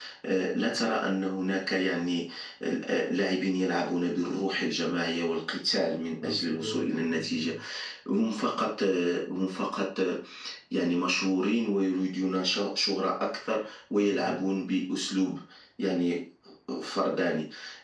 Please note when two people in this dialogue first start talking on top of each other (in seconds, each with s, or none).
6.2 s